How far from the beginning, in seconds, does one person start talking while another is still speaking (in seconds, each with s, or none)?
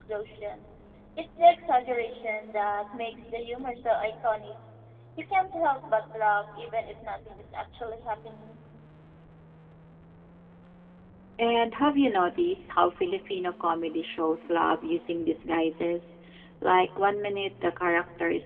none